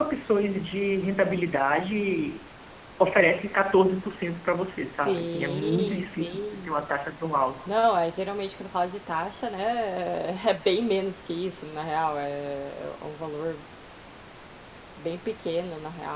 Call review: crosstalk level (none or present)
present